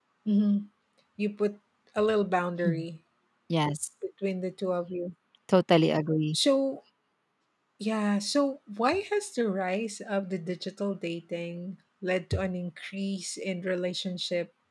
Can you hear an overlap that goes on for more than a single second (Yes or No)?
No